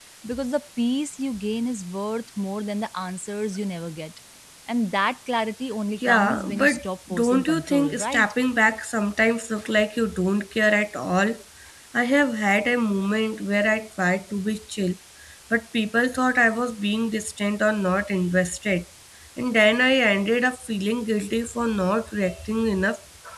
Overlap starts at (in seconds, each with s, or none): 6.0 s